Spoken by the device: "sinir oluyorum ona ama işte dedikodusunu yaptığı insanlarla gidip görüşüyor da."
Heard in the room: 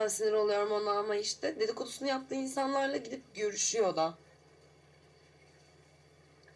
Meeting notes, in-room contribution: none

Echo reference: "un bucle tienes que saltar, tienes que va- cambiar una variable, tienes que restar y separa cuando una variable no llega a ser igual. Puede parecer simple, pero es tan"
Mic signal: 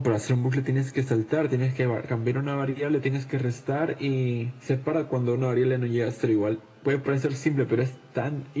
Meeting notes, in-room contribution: none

